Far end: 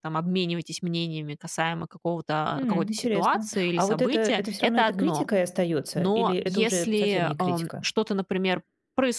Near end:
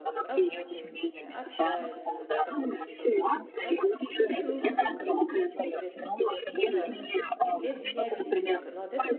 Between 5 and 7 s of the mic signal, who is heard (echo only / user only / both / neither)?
both